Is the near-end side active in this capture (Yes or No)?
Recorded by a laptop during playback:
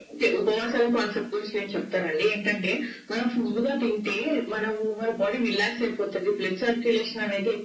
No